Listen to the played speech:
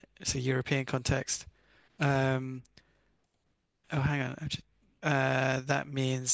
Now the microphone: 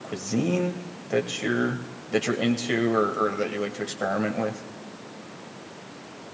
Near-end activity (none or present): present